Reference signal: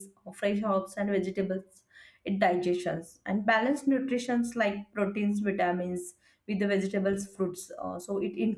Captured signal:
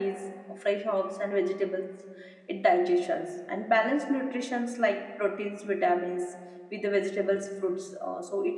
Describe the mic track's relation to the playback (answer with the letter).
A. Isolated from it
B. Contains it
B